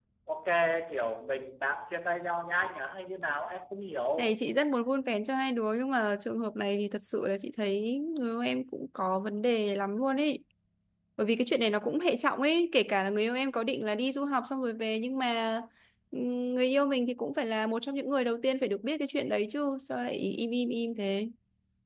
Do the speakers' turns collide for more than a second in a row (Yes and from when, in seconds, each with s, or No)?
No